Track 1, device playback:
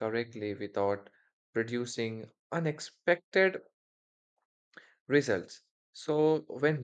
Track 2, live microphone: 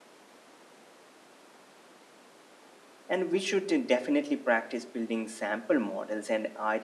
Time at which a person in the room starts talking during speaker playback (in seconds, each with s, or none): 3.1 s